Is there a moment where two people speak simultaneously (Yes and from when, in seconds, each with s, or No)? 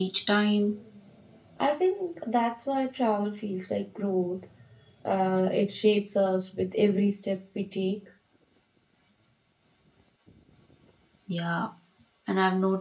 No